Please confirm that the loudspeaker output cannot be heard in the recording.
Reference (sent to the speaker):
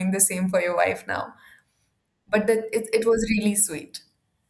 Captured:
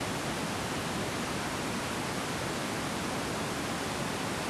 Yes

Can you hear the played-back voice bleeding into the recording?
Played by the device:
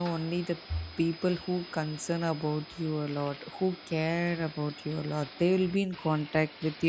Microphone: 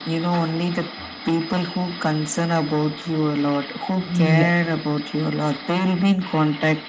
Yes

